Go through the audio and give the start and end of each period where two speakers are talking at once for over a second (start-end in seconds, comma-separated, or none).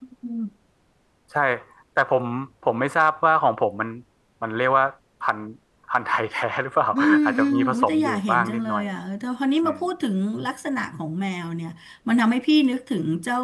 6.9-8.8